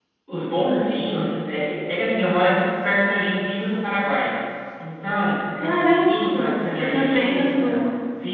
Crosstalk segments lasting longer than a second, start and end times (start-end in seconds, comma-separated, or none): 5.6-7.8